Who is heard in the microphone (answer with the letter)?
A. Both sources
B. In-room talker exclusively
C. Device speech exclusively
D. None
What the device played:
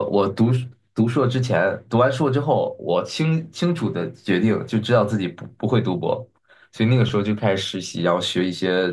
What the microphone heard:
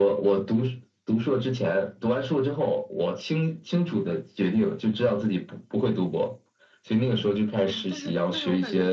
A